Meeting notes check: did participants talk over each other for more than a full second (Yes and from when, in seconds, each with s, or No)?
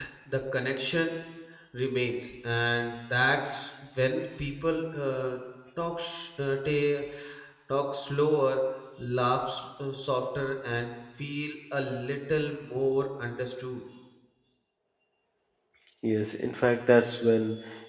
No